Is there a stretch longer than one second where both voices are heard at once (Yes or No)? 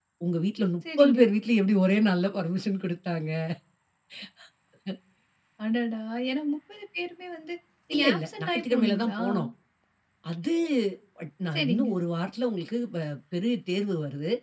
Yes